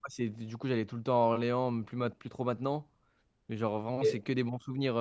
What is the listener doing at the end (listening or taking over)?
listening